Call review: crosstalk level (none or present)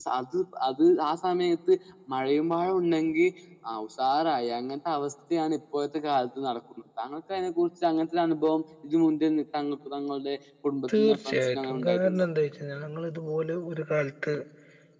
present